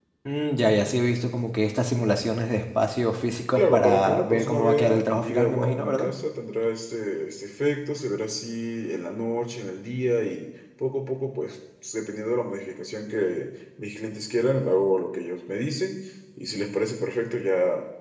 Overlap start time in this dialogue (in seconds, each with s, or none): 3.6 s